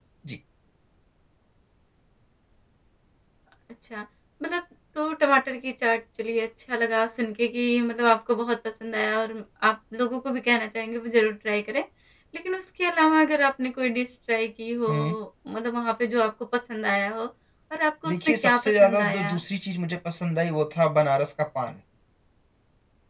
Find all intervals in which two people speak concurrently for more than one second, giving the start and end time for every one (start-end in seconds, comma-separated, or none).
18.1-19.3